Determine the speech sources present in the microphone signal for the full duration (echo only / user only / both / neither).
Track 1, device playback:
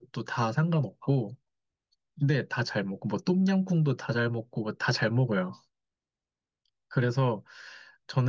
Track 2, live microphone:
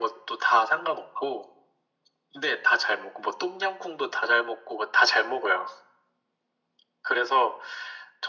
echo only